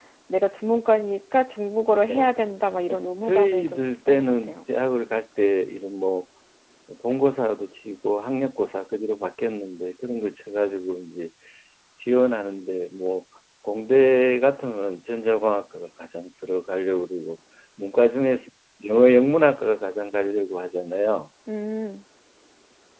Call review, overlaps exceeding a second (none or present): present